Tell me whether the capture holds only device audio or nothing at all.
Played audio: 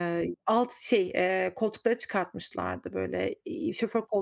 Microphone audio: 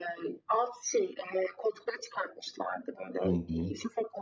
No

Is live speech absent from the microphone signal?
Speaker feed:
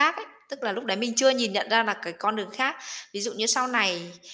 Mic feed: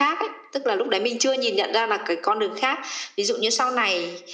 Yes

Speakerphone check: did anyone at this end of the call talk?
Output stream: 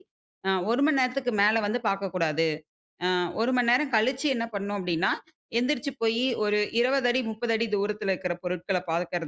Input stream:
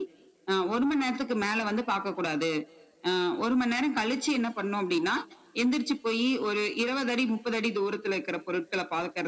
No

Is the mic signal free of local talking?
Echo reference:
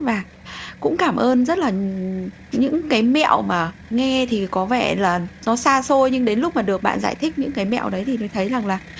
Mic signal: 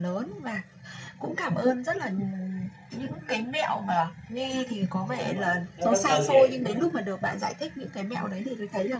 No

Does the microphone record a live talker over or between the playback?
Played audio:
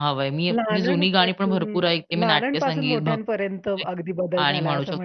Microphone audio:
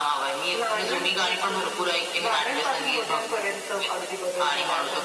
No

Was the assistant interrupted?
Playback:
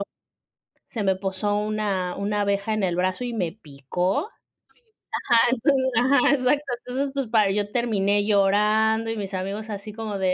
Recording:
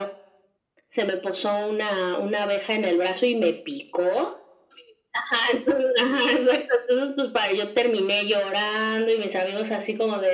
No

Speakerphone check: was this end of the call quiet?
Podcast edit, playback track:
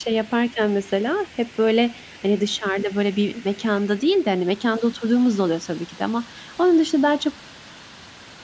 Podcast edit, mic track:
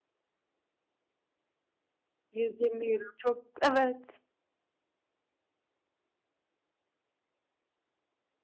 No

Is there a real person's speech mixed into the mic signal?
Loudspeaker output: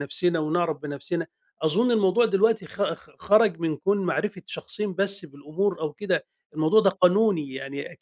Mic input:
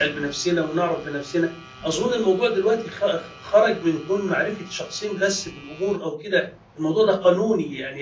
No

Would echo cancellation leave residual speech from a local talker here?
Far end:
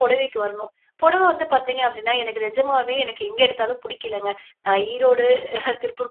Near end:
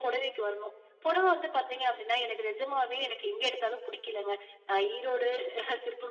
No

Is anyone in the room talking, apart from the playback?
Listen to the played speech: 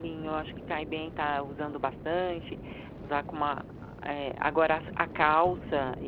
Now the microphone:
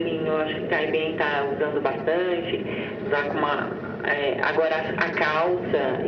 No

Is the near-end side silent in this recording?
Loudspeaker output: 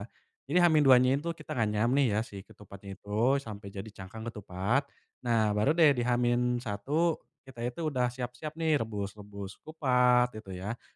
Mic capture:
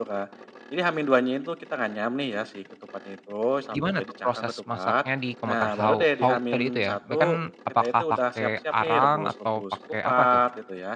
No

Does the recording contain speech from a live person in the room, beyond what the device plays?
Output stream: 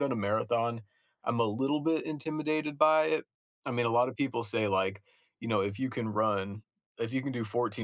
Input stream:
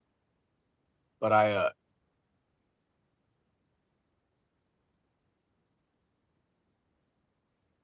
Yes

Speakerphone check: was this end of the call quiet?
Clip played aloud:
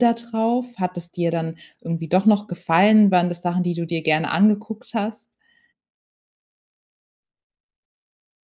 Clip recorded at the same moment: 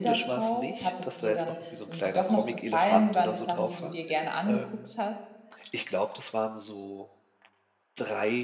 No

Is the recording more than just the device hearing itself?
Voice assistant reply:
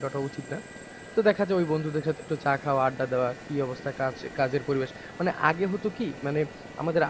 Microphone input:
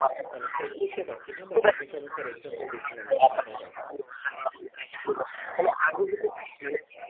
Yes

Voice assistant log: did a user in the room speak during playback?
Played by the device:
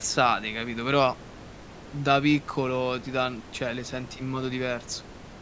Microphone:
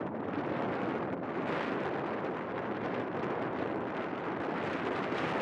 No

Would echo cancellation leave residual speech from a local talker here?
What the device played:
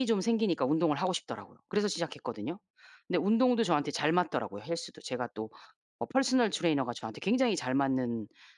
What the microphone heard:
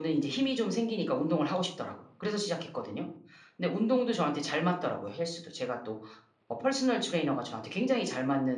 No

